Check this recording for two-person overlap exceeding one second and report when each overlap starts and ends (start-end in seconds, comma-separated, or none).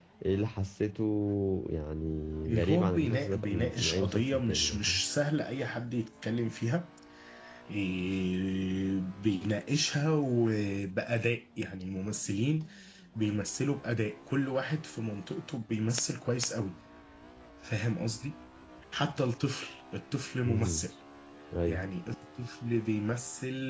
2.5-5.0